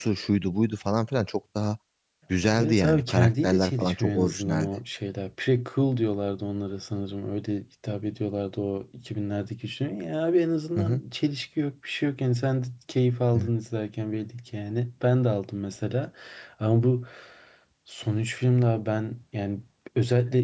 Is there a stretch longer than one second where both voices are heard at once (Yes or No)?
Yes